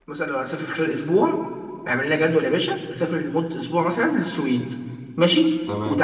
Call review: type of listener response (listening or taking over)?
listening